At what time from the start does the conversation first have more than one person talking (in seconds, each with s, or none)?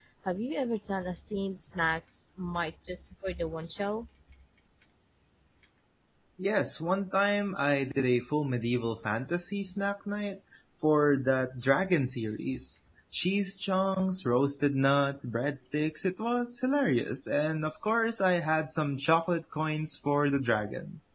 none